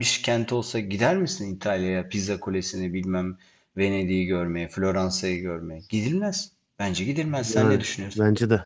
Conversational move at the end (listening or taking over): taking over